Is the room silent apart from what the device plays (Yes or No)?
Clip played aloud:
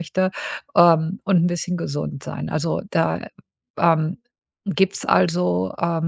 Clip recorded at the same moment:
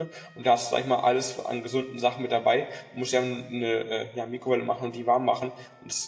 No